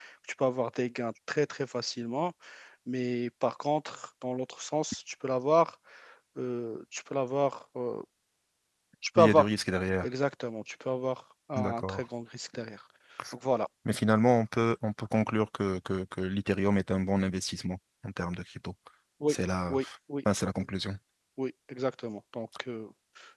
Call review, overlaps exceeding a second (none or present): none